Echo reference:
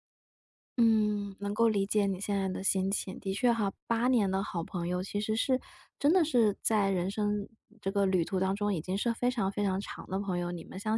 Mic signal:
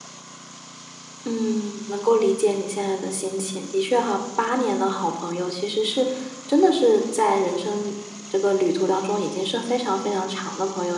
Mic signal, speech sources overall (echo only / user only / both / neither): echo only